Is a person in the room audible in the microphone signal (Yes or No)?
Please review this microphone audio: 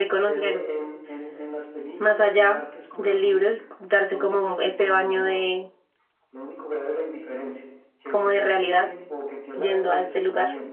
Yes